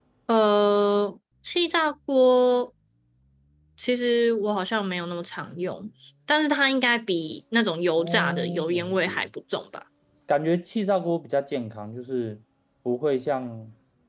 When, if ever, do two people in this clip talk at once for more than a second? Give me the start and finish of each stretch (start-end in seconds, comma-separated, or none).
8.0-9.3